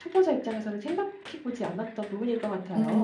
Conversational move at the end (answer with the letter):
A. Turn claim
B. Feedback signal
A